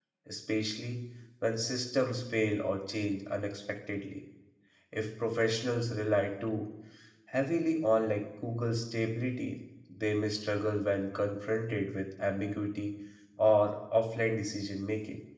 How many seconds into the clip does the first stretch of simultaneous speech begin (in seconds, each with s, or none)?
none